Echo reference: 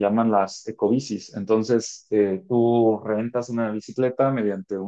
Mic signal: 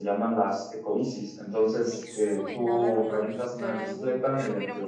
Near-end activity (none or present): present